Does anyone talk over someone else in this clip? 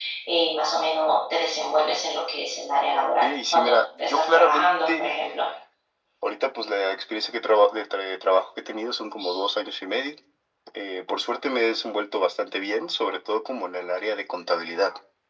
Yes, from 3.2 s

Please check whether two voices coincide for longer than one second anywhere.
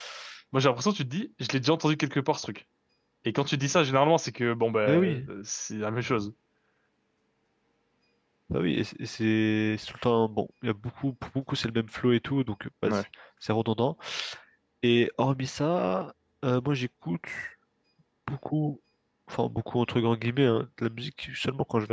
No

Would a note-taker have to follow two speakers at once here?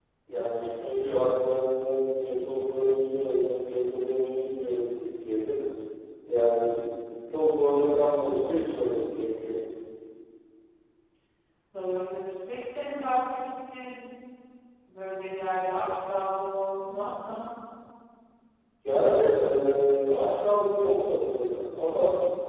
No

